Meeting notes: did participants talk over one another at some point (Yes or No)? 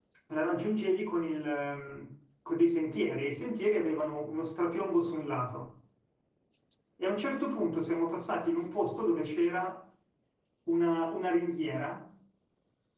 No